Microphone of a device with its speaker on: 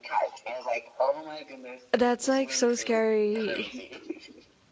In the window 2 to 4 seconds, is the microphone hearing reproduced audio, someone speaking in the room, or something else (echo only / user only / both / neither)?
both